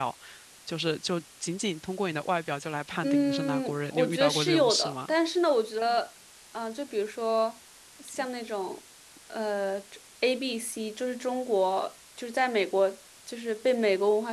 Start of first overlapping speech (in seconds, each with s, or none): 3.0 s